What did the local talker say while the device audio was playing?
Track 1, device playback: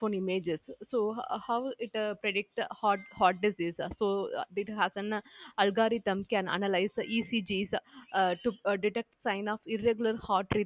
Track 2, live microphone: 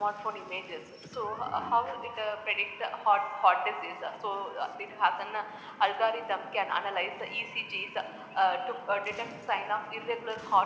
none

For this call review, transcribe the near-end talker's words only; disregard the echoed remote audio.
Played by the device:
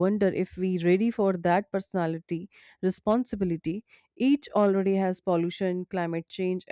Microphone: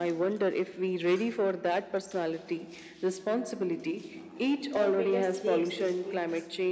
not make us slaves to screens.

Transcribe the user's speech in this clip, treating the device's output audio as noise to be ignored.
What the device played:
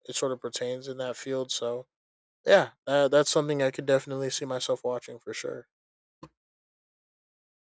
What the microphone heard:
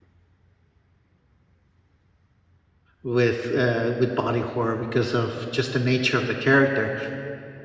with uh, with body horror because of just the nature of the character.

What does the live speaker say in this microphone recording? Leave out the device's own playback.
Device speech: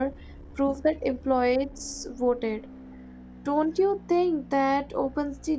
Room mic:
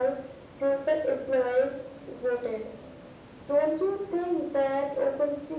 none

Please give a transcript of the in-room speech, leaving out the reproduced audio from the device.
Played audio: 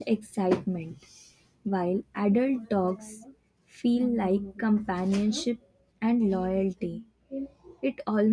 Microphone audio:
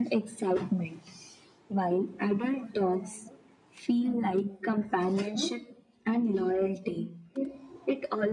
none

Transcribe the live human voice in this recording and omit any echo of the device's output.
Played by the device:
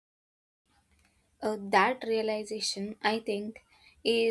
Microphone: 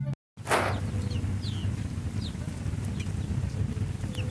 none

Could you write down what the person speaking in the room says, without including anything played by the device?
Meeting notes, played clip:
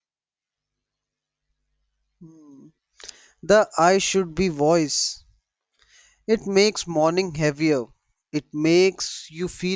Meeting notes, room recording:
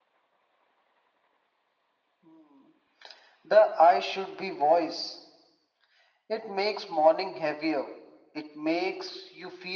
none

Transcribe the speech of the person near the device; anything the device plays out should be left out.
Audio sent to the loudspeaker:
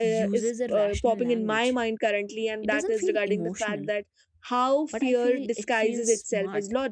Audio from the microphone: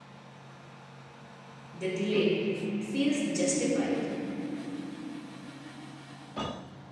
the delay it feels justified

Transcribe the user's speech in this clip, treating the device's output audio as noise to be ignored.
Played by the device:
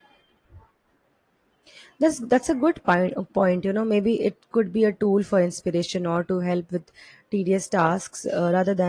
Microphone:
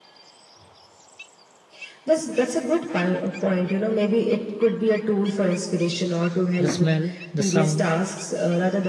The smell, the sound,

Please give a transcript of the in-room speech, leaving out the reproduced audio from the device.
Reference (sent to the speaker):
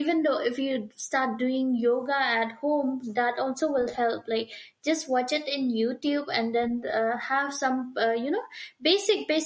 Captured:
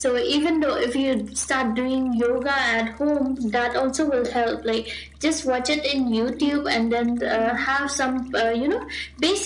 Mm. Mhm.

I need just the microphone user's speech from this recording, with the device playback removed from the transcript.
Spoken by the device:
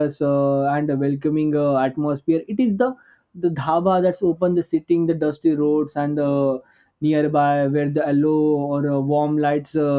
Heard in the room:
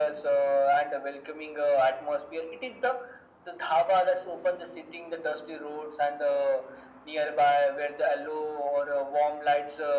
none

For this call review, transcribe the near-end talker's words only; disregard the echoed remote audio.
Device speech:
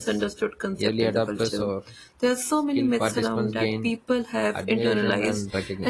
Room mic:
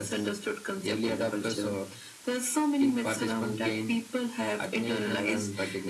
none

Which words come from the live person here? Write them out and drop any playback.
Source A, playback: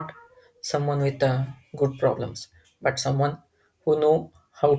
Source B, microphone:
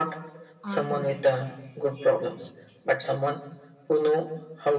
on yourself.

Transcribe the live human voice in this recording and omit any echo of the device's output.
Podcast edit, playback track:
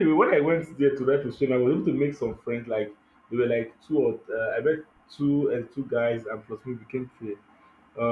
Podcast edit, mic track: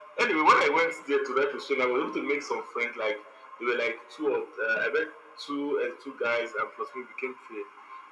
none

